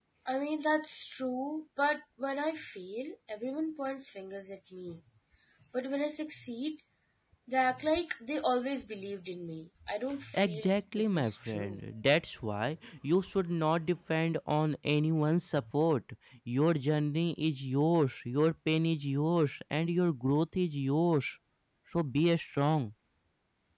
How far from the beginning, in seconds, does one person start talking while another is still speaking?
10 s

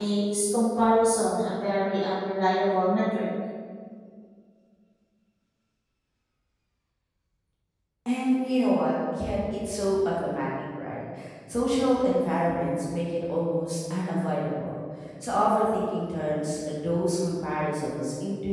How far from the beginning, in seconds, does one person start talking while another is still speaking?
none

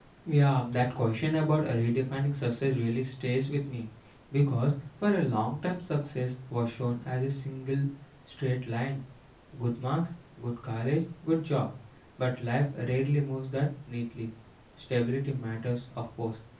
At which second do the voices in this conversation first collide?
none

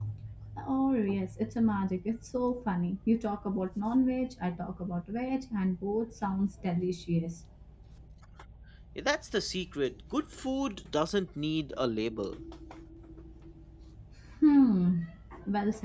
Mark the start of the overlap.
none

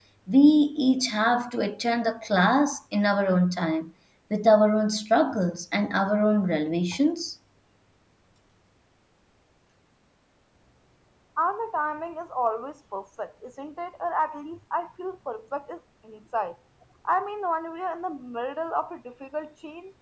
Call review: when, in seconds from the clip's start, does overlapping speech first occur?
none

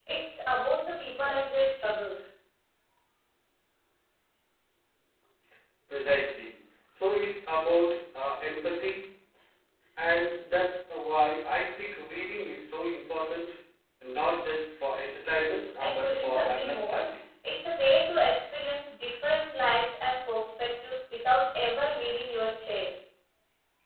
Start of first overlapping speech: 16 s

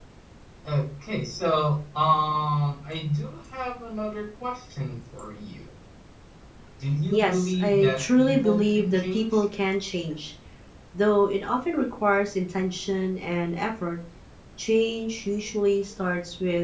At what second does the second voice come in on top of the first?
7 s

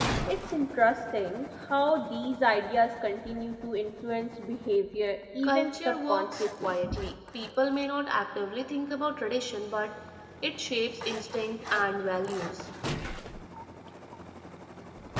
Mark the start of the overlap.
5 s

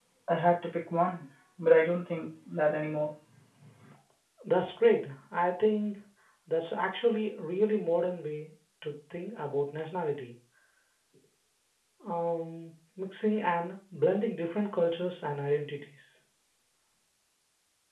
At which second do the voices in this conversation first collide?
none

